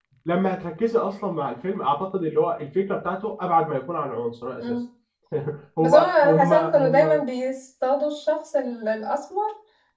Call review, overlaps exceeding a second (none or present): present